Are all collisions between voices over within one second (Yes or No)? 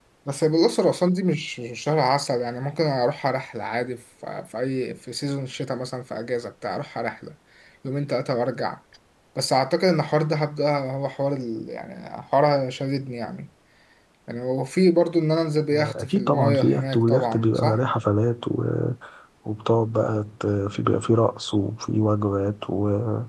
No